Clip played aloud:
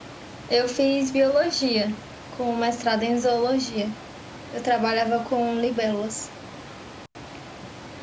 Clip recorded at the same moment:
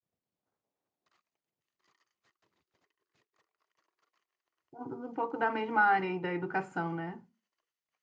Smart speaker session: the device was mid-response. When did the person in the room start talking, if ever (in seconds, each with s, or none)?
4.7 s